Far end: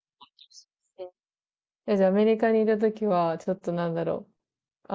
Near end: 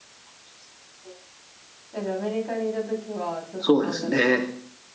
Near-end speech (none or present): present